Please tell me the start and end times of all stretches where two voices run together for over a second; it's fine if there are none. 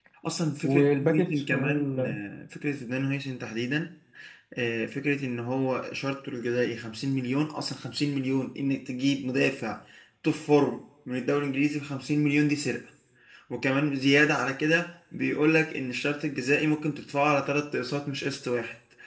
0.6-2.1

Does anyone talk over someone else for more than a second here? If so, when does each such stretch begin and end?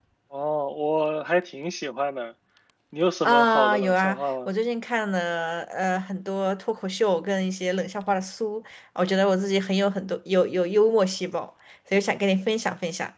3.2-4.5

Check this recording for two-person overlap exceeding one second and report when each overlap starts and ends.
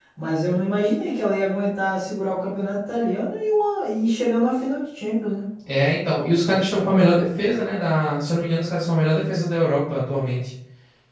none

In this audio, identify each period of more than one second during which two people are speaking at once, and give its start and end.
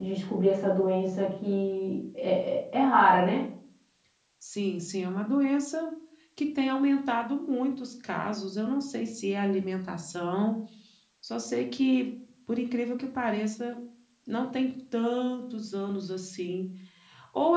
none

